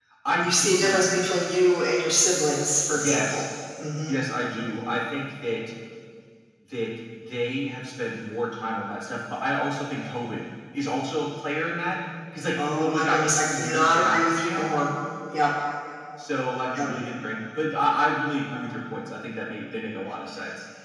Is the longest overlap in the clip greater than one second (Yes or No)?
Yes